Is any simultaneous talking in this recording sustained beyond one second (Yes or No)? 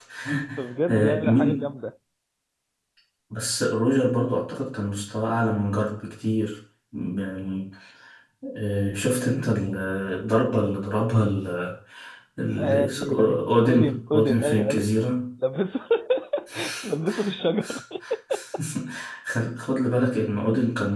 Yes